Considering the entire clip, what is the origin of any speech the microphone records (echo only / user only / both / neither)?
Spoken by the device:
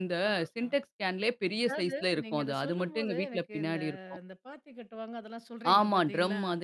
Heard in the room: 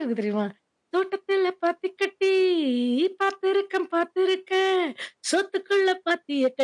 user only